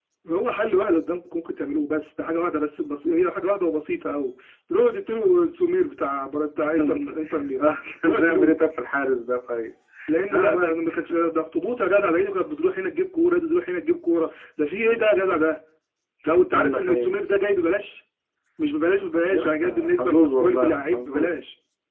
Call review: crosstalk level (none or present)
present